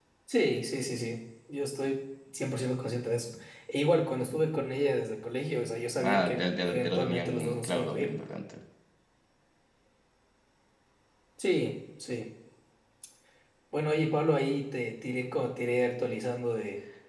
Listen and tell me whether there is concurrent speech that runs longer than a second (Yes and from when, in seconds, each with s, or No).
Yes, from 6.0 s